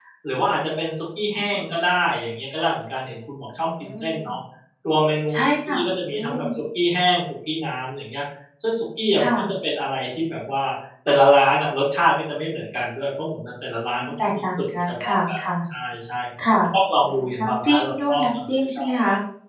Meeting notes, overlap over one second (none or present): present